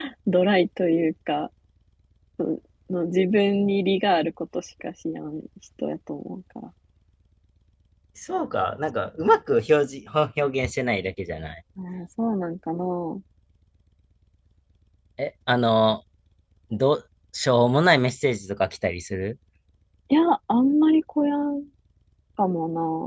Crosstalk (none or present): none